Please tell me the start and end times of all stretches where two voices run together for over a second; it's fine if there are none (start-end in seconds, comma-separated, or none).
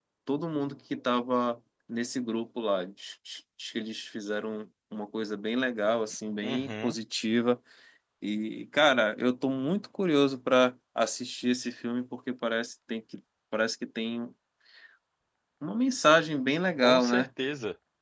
none